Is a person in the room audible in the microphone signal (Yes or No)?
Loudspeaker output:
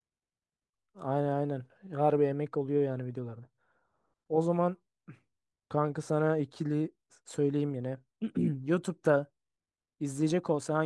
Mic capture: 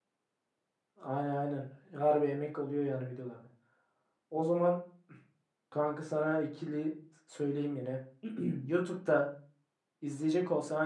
No